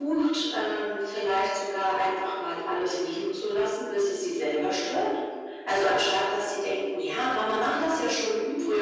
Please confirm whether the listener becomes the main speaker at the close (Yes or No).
No